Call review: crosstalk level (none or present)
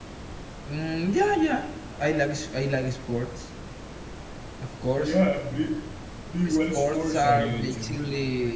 present